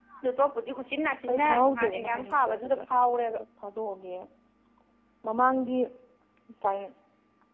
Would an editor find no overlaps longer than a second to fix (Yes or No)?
No